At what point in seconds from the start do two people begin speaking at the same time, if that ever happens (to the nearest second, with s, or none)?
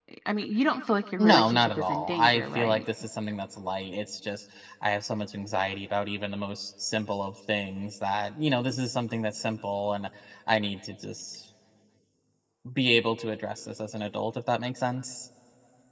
1 s